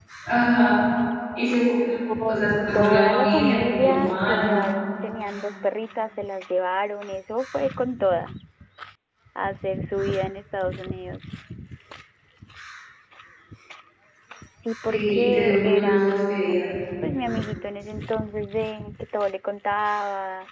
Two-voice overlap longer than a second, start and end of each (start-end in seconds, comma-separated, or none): 2.3-4.6, 14.9-16.6